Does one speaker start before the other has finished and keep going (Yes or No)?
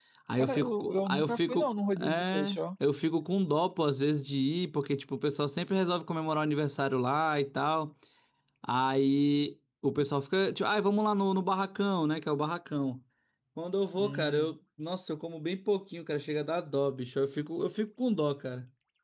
Yes